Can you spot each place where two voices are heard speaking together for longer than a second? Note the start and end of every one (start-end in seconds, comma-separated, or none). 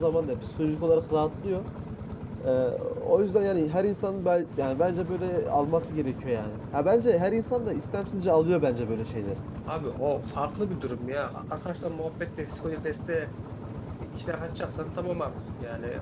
none